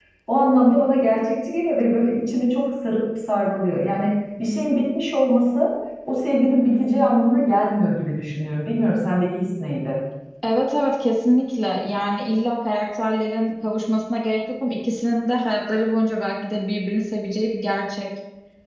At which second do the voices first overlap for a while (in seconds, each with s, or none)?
none